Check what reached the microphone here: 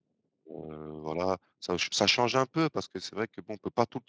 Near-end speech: present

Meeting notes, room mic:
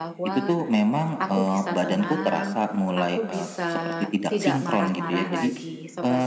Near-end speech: present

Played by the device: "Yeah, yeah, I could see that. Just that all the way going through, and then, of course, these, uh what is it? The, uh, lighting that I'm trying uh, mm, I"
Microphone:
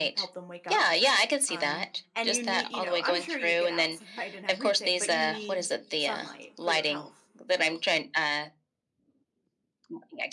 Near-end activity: present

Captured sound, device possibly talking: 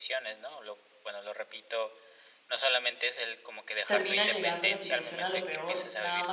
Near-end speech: present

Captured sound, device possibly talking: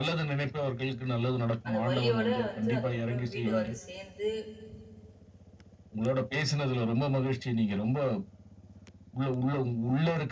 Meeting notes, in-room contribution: present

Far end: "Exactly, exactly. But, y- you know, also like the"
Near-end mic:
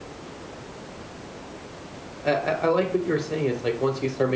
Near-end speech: present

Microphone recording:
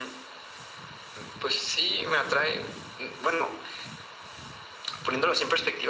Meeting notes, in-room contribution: none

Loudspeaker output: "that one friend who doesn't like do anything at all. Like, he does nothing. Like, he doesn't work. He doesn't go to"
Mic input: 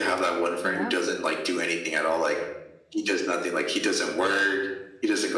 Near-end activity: present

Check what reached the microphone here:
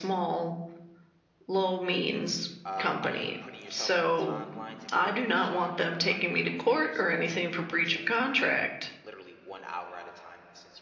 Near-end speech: present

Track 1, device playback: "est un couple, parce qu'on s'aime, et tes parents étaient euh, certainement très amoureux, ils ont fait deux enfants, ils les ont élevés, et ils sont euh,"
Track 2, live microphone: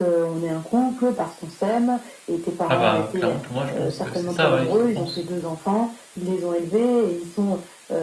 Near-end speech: present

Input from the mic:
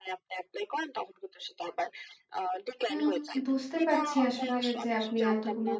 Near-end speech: present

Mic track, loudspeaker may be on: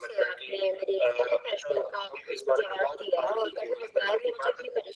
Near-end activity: none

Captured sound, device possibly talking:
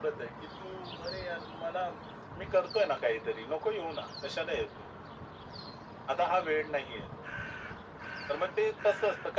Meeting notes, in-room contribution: none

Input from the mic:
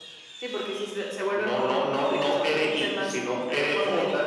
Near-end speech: none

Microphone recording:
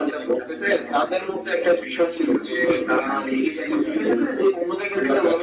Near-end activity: none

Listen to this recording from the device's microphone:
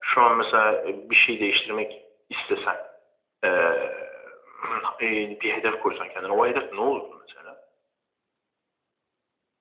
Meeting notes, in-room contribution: none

